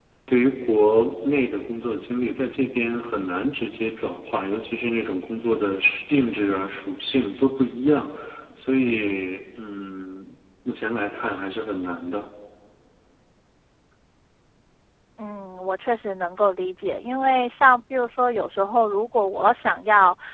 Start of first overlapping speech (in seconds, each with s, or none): none